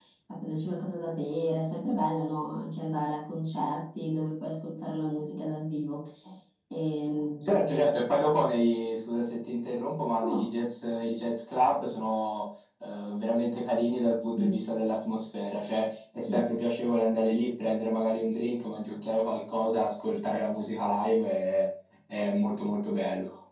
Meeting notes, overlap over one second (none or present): none